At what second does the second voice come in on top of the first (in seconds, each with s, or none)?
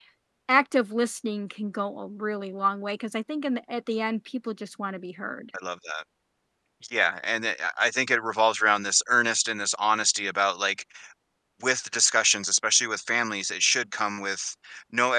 none